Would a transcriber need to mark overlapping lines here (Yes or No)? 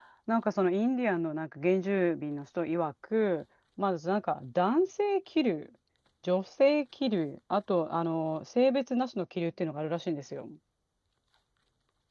No